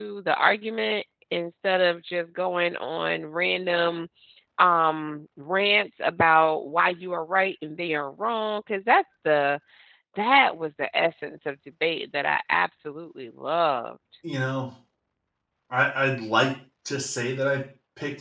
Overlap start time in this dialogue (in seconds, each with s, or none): none